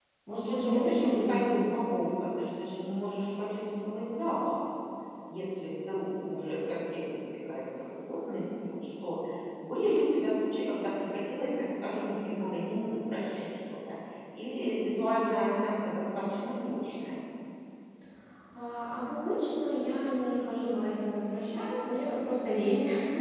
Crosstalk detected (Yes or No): Yes